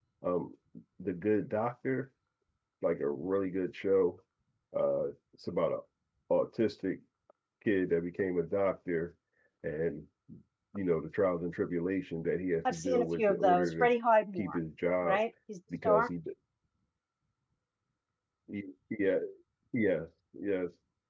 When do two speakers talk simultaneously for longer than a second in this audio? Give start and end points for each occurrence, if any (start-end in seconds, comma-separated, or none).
12.7-13.9